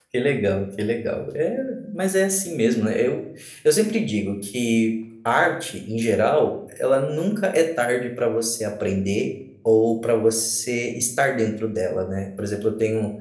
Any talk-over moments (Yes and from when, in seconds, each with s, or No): No